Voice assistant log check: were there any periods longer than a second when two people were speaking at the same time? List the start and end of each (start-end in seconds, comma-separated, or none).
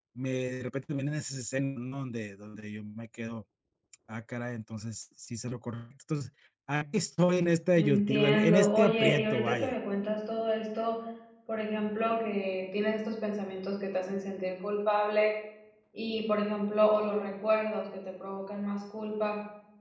7.8-9.8